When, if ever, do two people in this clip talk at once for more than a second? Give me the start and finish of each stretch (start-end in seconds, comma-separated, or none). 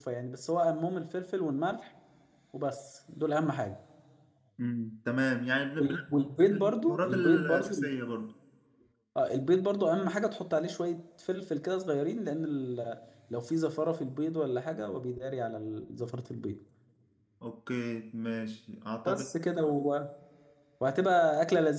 6.4-7.7